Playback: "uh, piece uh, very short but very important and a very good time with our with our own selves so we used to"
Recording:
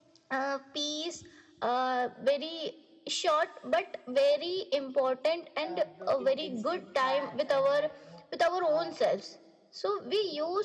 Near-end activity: present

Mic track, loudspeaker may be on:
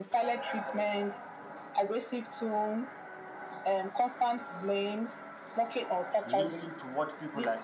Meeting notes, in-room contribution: present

